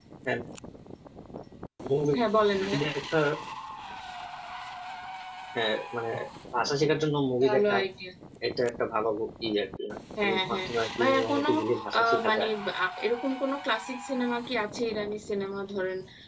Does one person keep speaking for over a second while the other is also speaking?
Yes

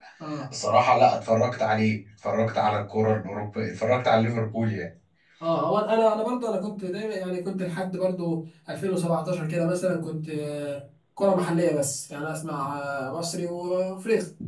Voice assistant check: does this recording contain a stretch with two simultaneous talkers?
No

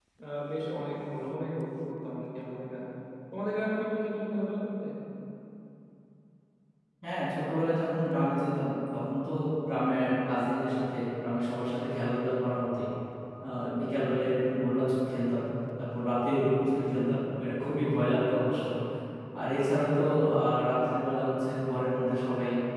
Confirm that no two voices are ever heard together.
Yes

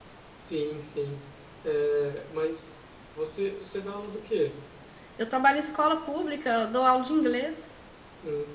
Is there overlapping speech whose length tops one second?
No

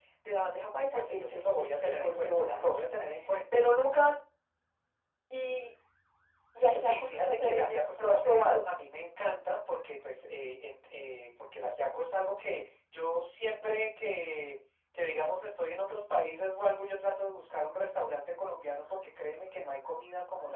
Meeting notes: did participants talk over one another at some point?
Yes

